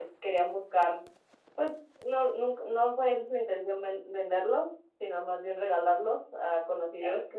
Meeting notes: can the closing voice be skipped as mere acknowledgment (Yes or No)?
Yes